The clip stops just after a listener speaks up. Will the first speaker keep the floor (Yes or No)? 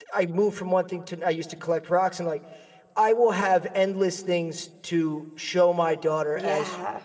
Yes